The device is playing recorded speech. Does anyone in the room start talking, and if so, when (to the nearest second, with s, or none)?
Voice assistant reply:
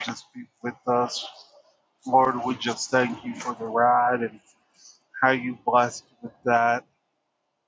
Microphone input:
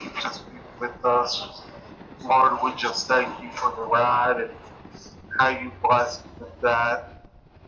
none